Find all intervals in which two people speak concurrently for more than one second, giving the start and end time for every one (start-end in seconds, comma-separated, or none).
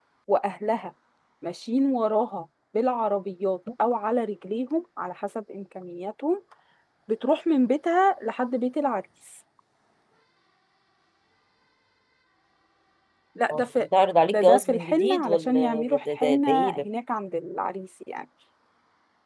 14.3-16.8